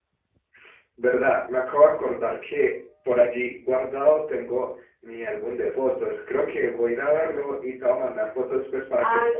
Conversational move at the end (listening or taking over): taking over